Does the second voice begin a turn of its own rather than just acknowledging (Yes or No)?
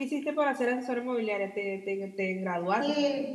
Yes